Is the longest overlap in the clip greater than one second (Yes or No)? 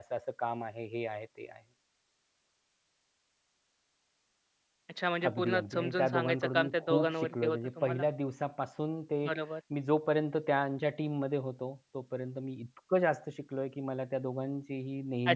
Yes